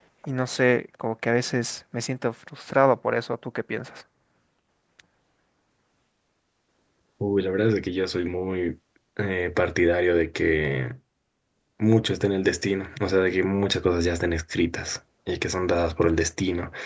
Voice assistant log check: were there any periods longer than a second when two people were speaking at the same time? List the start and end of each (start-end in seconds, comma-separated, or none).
none